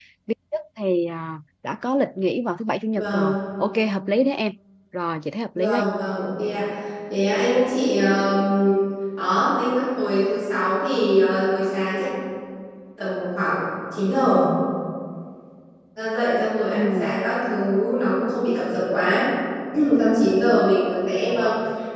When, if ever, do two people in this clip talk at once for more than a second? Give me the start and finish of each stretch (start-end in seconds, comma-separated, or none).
none